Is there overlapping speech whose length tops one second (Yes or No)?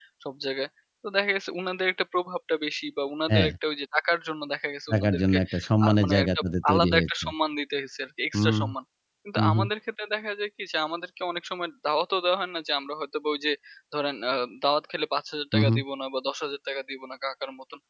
Yes